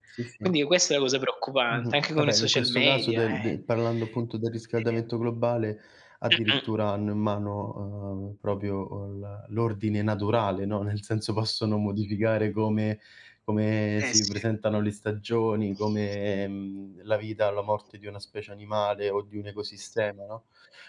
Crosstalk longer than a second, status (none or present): present